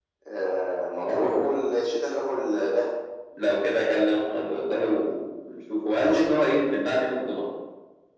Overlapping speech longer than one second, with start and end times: none

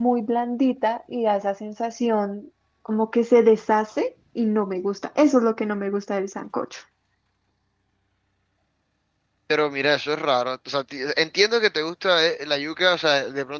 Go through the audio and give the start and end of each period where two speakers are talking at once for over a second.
none

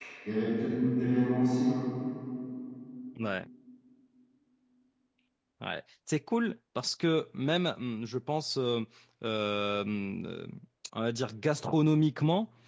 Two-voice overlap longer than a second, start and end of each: none

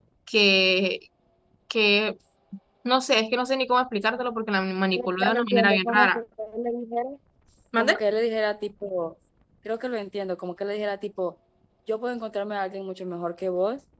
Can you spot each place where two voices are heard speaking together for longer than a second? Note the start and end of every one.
5.0-6.2

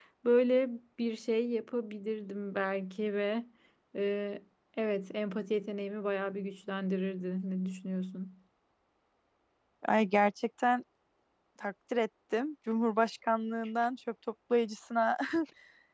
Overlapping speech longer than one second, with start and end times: none

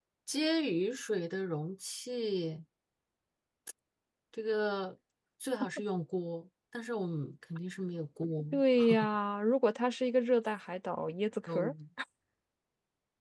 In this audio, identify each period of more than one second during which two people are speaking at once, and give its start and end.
none

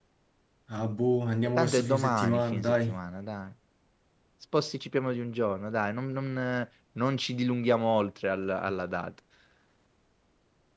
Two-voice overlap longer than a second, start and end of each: 1.4-3.0

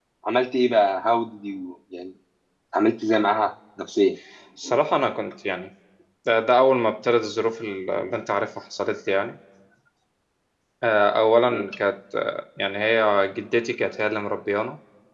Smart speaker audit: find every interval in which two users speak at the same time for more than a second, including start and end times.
none

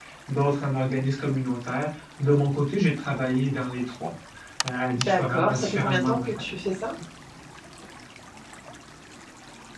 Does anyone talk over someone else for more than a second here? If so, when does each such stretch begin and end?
5.1-6.6

